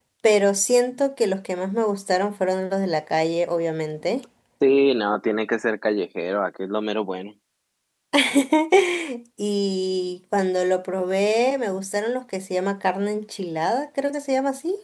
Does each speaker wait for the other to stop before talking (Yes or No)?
Yes